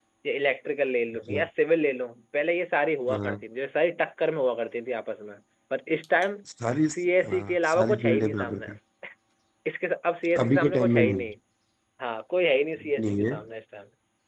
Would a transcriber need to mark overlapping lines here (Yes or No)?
Yes